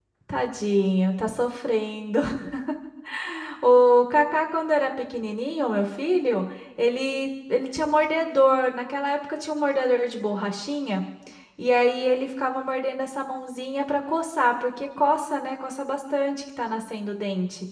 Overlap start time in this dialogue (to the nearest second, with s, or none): none